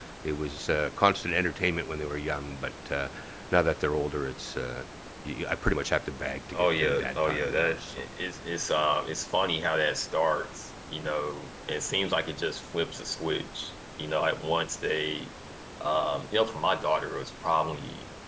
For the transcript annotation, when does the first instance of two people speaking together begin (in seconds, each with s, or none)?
6.5 s